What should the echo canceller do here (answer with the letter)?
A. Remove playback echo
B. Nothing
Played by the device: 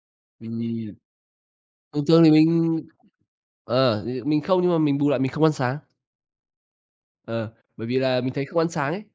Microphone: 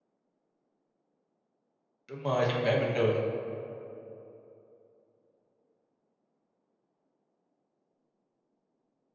B